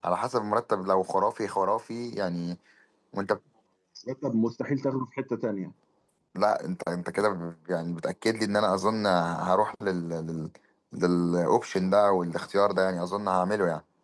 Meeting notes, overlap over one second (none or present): none